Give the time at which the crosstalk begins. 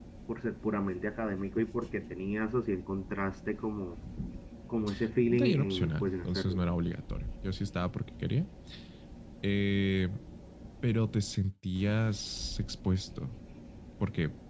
5.3 s

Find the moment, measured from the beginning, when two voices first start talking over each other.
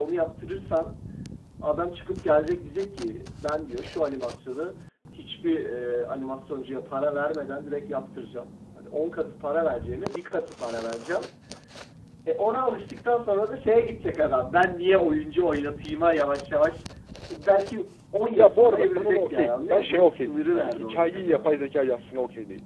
18.4 s

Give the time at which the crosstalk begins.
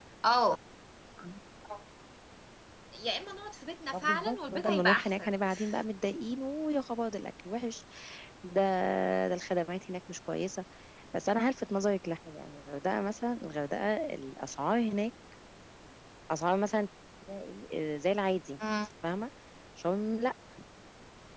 3.9 s

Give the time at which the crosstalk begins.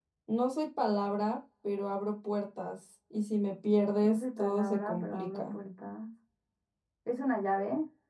4.0 s

